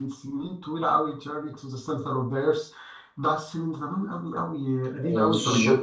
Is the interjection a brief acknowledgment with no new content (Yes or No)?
No